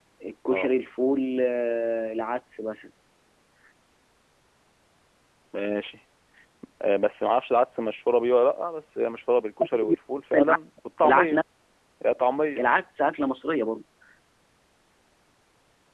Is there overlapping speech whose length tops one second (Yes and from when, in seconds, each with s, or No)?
No